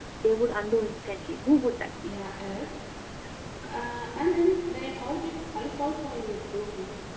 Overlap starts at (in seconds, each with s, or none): none